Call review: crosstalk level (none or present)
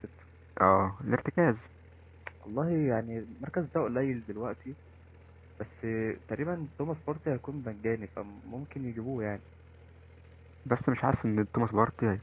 none